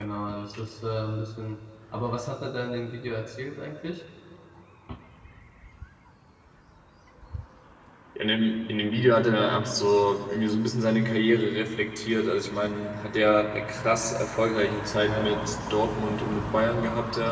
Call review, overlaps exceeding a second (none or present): none